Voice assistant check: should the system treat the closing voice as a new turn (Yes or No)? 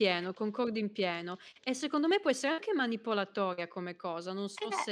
Yes